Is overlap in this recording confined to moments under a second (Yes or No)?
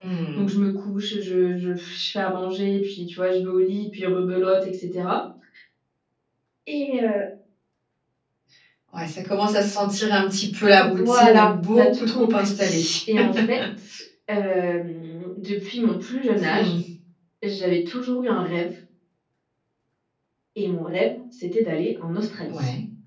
No